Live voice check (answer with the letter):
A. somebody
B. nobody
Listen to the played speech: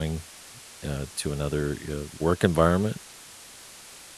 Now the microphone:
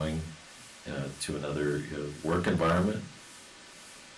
B